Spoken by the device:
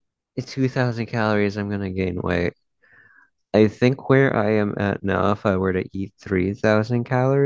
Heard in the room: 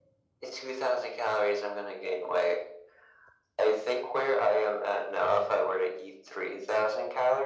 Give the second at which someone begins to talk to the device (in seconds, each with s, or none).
none